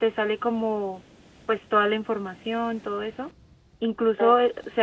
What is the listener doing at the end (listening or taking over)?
listening